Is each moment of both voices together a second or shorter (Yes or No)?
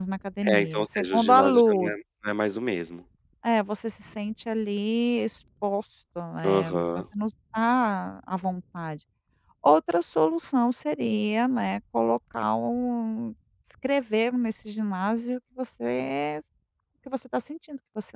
No